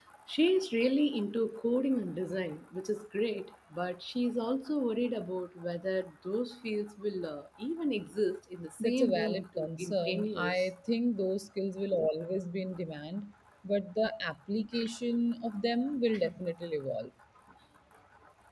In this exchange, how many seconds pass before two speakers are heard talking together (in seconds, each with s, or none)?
8.8 s